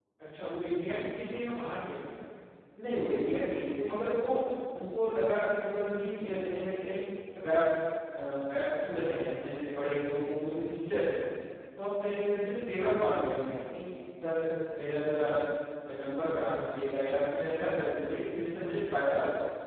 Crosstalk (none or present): none